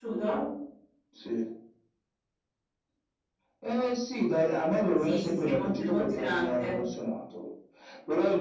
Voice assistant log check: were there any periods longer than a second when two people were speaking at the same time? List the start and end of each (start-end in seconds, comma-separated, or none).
5.0-6.7